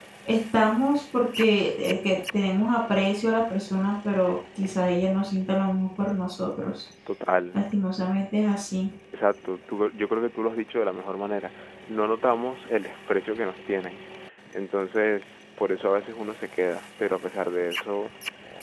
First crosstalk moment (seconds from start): none

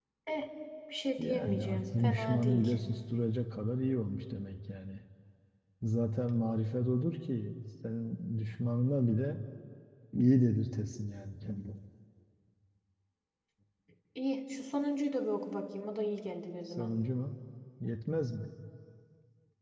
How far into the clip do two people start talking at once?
1.2 s

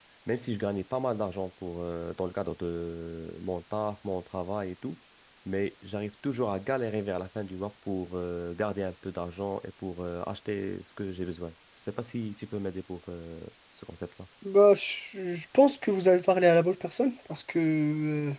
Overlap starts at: none

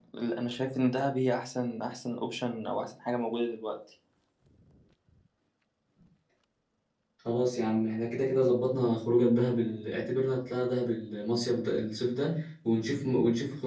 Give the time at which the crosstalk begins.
none

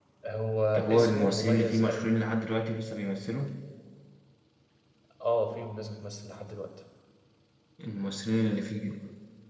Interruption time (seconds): 0.7 s

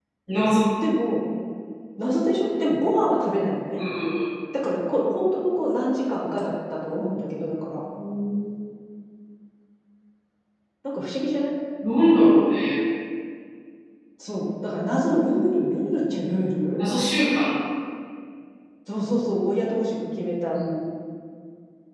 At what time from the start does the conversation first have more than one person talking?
none

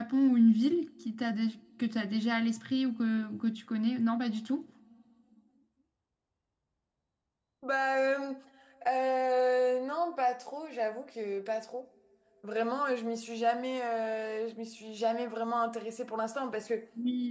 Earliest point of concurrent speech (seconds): none

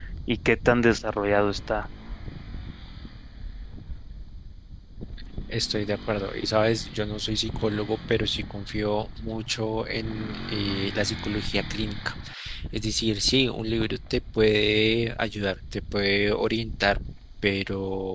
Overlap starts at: none

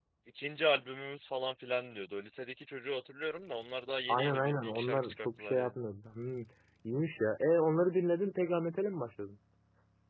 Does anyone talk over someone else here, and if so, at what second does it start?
4.1 s

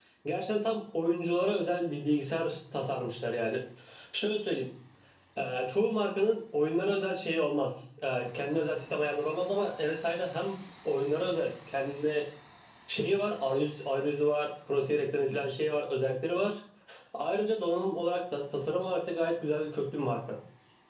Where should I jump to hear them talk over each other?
none

